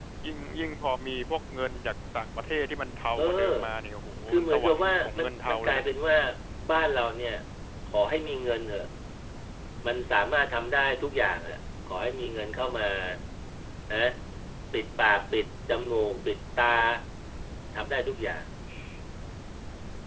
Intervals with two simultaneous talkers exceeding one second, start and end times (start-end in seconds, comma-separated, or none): 4.3-5.8